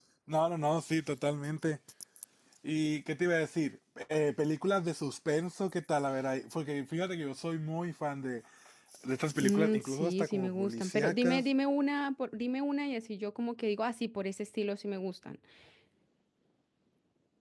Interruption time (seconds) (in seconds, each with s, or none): 9.4 s